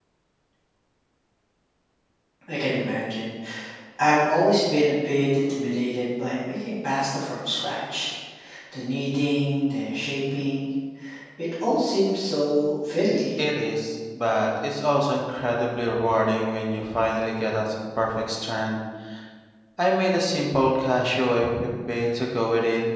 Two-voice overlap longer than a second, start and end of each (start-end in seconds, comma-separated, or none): none